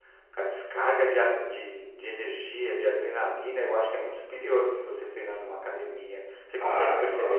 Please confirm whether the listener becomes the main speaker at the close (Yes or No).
Yes